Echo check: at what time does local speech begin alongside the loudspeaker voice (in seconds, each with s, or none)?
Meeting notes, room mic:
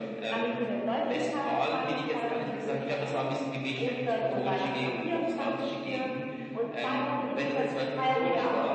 none